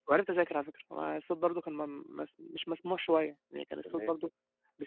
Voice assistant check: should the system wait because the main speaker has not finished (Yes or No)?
Yes